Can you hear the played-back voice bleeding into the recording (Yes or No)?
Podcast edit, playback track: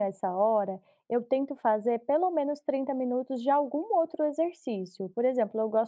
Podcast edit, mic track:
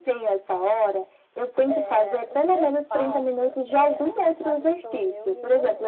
Yes